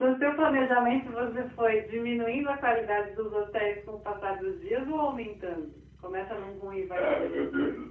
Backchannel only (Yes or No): No